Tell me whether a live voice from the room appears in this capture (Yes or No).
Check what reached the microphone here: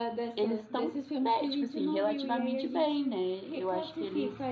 No